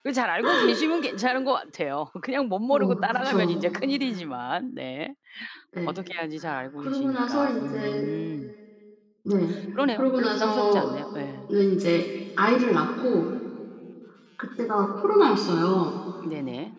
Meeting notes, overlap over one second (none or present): present